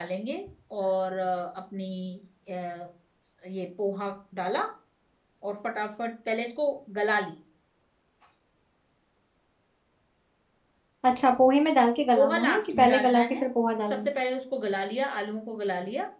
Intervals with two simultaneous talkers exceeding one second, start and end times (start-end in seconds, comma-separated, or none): 12.2-13.4